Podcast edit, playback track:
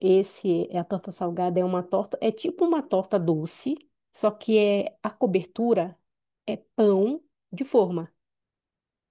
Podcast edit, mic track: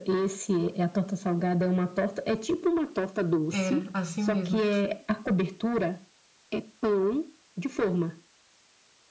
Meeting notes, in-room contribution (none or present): present